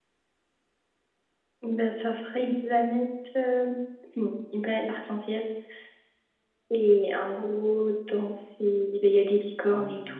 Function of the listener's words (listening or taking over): taking over